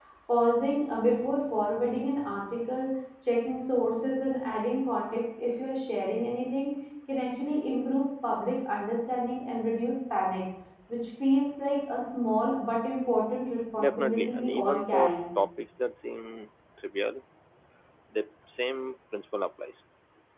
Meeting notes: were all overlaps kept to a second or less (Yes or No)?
No